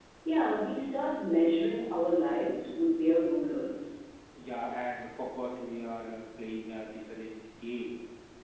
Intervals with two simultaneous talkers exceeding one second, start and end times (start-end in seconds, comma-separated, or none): none